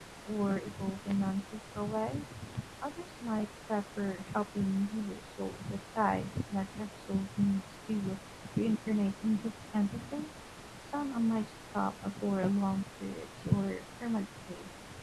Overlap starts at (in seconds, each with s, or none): none